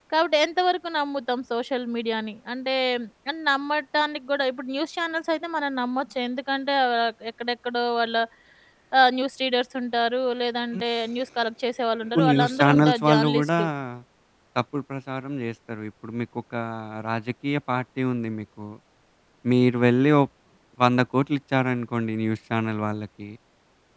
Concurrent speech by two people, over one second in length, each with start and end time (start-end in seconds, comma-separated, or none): 12.1-13.6